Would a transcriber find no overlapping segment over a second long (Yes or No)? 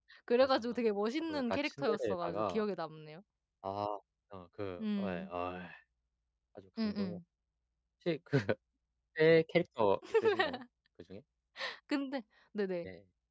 No